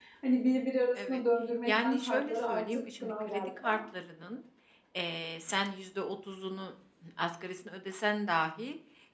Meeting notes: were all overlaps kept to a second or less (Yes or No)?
No